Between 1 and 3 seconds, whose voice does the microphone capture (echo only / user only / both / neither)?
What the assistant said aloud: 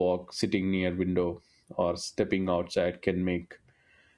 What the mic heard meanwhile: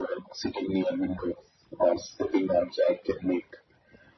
echo only